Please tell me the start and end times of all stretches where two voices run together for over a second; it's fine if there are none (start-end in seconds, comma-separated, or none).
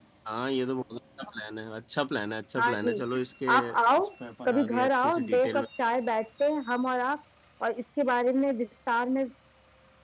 4.5-5.7